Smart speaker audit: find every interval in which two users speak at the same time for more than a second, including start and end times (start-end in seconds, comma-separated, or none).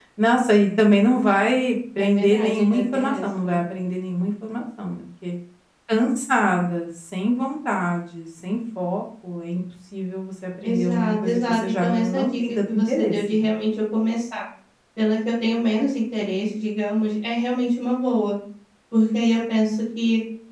2.0-3.6, 10.6-13.5